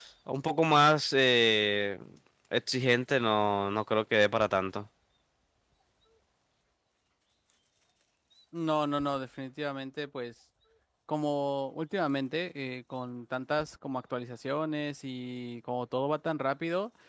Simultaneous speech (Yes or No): No